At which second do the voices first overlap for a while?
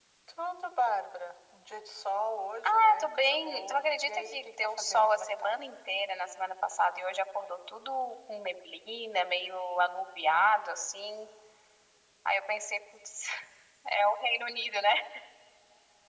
2.6 s

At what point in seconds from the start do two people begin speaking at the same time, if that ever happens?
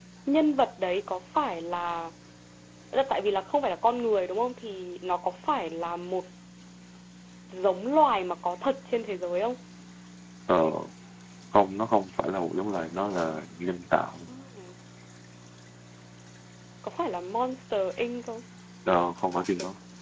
none

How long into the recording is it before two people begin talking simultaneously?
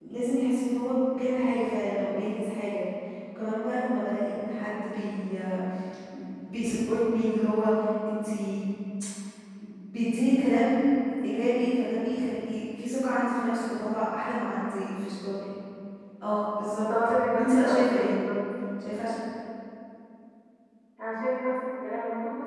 16.7 s

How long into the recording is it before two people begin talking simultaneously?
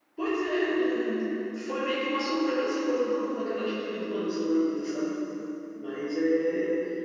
none

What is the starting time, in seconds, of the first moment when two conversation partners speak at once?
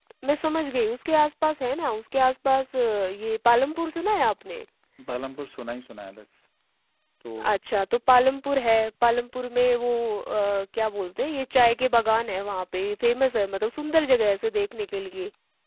none

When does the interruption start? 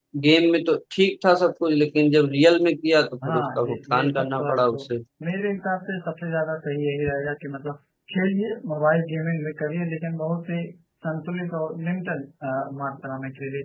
3.2 s

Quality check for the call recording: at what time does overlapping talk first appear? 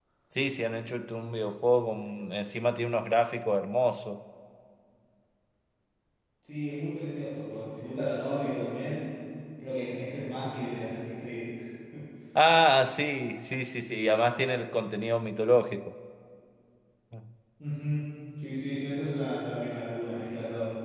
none

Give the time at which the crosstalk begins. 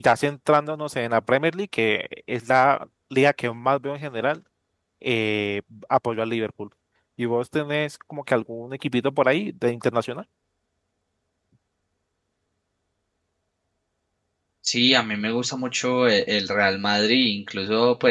none

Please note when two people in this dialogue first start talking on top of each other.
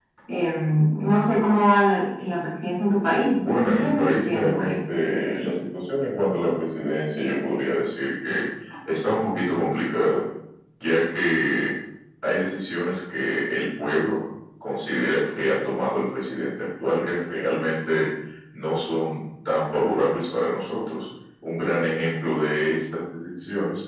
3.3 s

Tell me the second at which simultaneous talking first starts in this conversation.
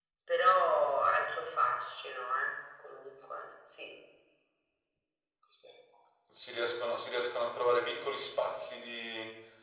none

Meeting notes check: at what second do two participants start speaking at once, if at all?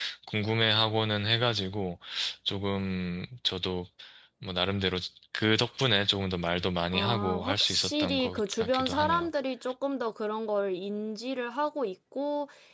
6.9 s

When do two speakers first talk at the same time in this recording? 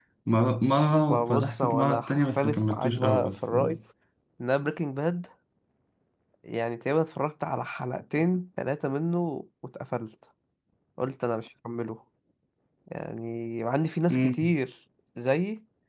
1.1 s

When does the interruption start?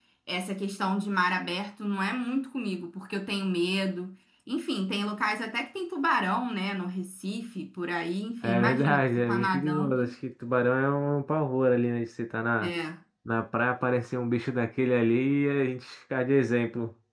8.4 s

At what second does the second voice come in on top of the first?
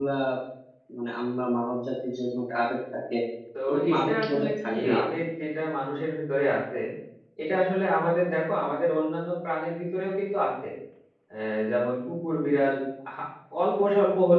3.7 s

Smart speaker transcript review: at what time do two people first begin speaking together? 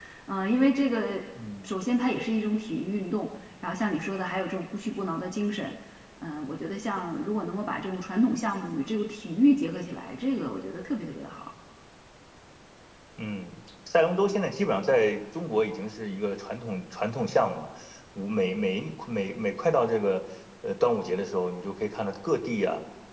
none

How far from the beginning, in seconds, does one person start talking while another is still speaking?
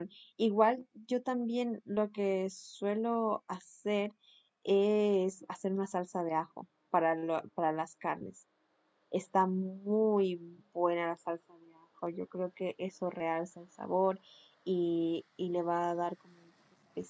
none

